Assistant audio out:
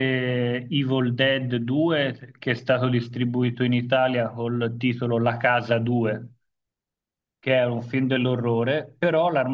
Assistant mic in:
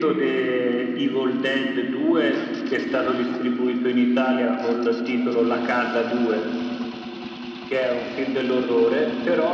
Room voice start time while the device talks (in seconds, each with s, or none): none